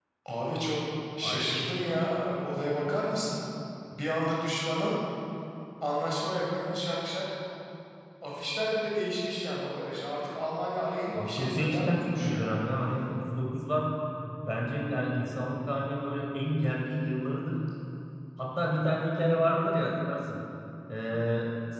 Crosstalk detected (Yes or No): Yes